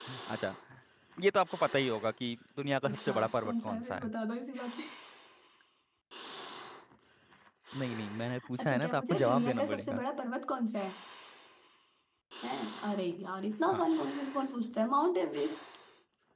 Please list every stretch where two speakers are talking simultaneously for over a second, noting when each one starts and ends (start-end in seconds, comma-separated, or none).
2.9-4.1, 8.6-10.0